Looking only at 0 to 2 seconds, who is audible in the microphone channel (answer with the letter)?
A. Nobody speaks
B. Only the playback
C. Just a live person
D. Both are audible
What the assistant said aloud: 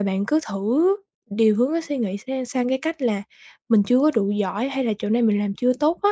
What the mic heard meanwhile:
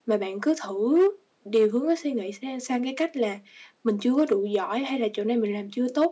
B